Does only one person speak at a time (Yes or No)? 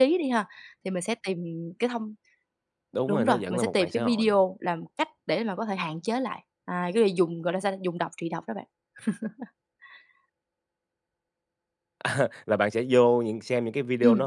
No